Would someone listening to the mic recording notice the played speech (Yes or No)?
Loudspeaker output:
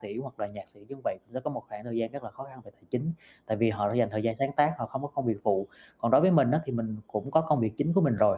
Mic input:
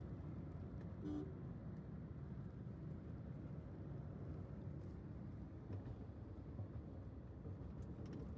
No